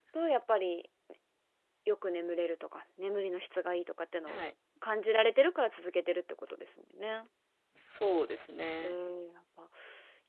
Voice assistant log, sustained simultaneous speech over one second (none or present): none